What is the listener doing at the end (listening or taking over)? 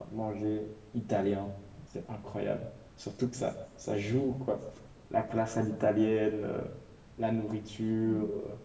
taking over